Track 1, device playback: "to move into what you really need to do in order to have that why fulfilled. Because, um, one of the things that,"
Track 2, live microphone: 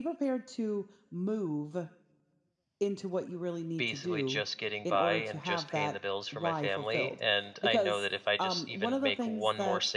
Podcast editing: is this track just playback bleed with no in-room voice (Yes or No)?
No